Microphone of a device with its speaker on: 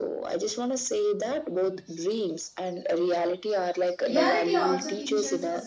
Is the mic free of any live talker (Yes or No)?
No